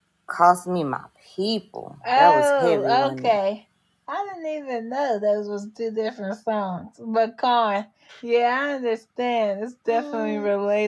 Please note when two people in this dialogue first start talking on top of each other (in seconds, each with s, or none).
2.0 s